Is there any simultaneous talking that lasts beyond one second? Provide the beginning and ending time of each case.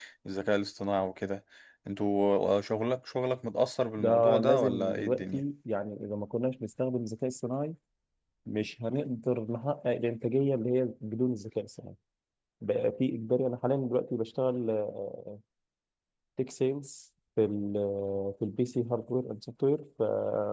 4.0-5.4

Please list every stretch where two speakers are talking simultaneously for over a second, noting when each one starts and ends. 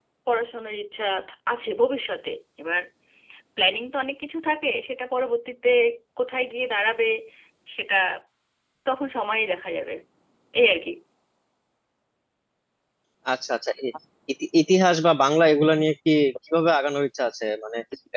none

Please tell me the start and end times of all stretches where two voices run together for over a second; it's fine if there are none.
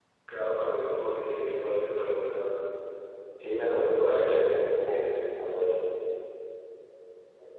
3.6-5.0

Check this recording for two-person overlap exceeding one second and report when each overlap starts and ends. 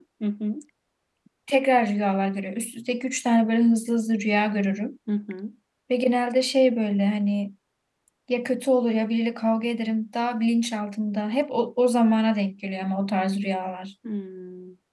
none

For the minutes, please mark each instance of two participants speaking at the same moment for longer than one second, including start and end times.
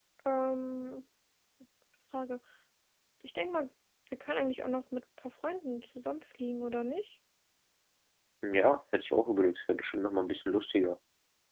none

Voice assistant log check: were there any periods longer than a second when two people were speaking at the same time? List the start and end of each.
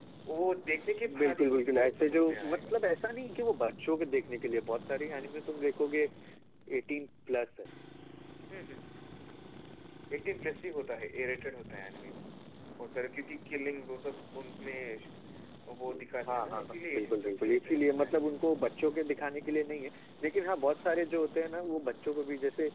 1.2-2.7, 16.3-18.4

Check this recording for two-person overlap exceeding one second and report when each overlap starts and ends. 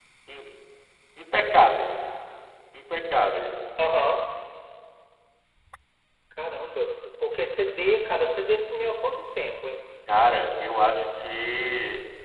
none

